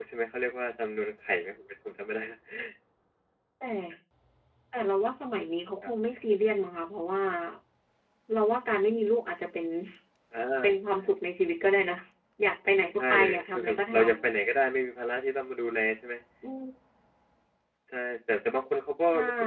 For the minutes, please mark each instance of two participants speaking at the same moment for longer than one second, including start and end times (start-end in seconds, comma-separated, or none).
13.0-14.3